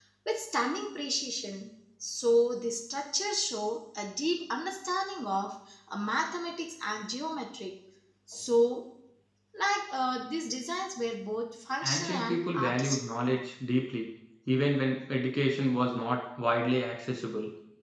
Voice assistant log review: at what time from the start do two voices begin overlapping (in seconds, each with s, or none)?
11.8 s